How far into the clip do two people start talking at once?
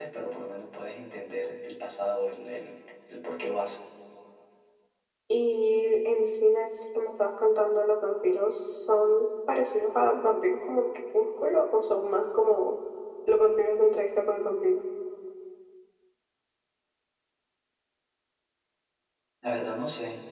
none

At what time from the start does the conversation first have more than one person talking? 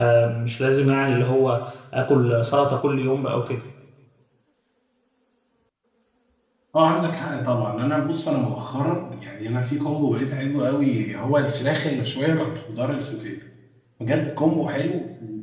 none

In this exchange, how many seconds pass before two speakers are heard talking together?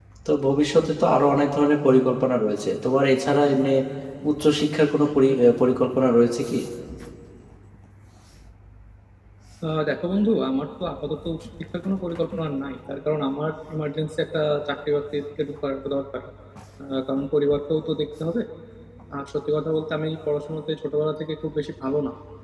none

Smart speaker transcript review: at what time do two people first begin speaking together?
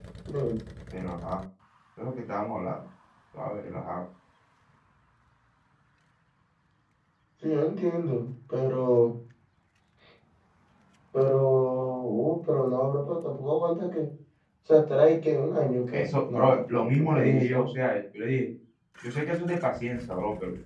15.9 s

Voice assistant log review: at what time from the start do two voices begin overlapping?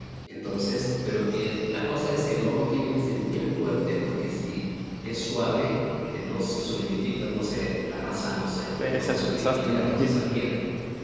8.8 s

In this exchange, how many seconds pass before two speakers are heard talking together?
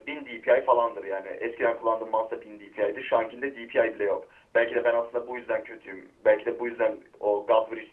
none

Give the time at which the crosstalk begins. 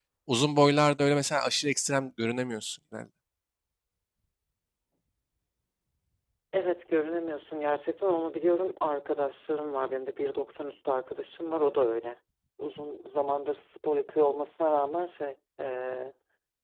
none

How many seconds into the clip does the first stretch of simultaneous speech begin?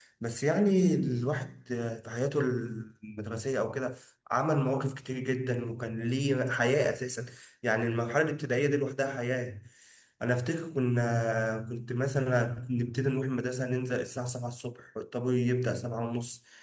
none

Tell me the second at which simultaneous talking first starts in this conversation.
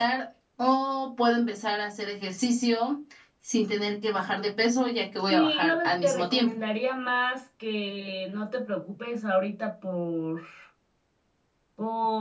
5.3 s

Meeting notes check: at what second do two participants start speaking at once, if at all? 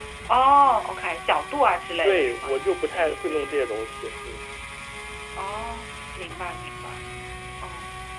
2.0 s

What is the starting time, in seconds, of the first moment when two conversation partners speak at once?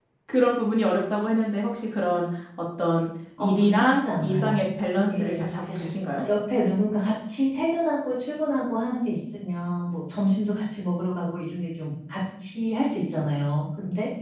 3.4 s

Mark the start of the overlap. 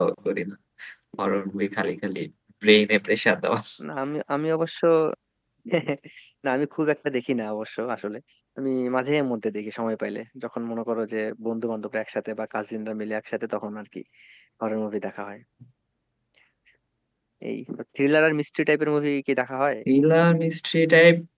none

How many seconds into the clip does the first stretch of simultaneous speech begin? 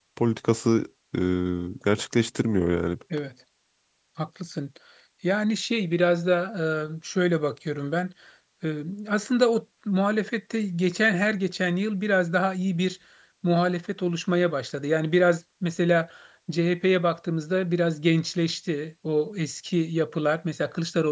none

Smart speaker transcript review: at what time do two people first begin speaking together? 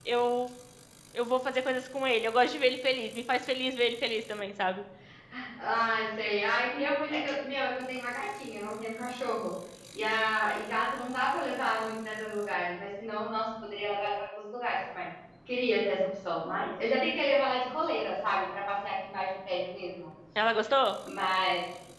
none

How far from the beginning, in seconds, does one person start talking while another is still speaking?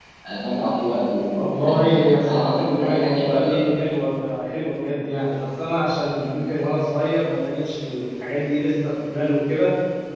1.4 s

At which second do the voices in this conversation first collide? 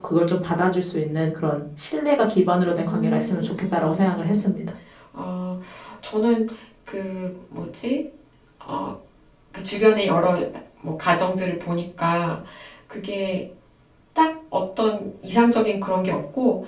2.7 s

